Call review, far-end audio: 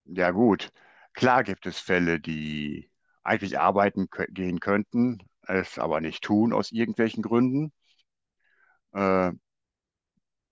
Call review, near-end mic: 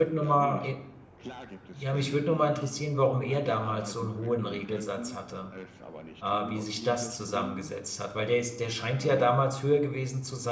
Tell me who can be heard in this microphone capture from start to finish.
both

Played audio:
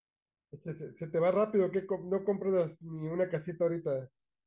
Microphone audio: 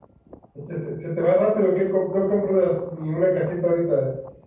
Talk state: echo only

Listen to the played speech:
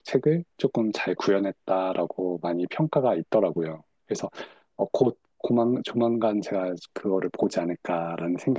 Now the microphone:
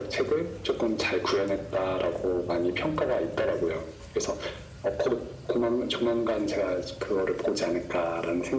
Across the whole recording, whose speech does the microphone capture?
echo only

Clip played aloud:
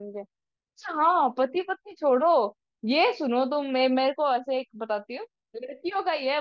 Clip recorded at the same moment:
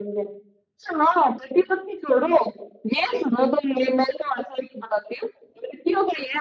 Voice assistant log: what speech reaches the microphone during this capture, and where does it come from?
echo only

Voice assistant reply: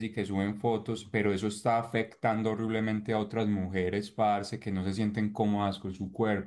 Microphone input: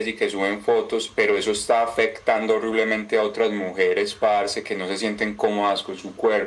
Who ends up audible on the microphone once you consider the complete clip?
echo only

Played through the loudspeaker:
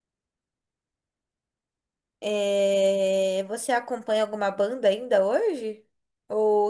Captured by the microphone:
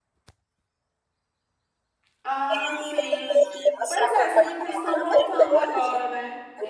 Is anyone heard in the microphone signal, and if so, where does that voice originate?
both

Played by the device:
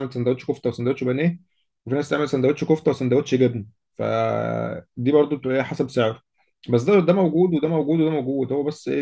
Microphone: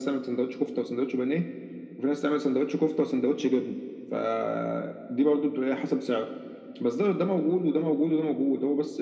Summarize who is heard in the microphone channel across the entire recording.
echo only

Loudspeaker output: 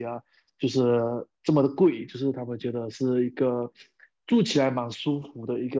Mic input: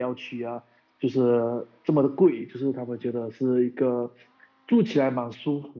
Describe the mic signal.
echo only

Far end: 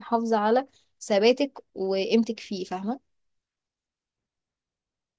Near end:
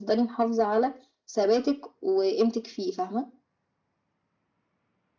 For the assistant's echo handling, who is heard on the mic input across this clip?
echo only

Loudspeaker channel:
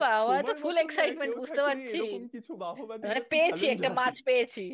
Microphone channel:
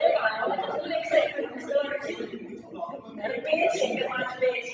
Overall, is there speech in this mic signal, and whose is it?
echo only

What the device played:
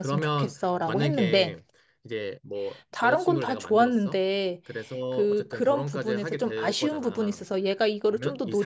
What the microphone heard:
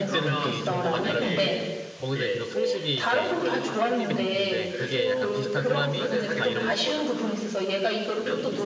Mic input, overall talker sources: both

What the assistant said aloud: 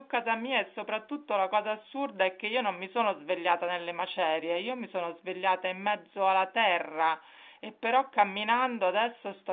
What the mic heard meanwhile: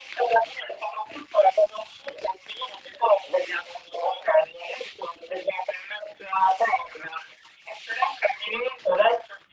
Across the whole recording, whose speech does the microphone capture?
echo only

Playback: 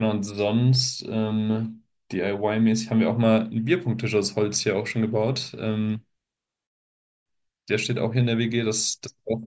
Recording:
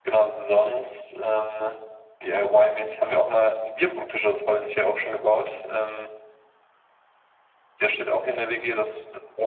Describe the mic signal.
echo only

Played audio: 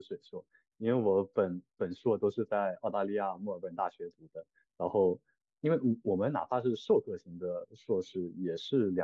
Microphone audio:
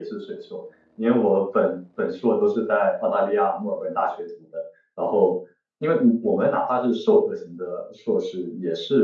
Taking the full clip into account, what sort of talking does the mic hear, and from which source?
echo only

